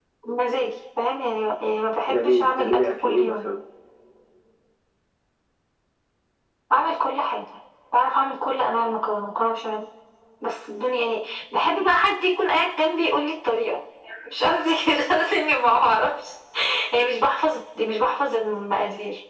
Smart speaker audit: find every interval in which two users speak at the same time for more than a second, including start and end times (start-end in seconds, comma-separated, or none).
2.1-3.5